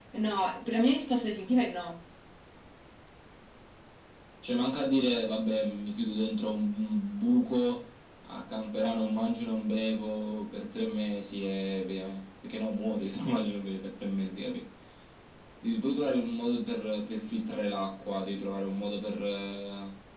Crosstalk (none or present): none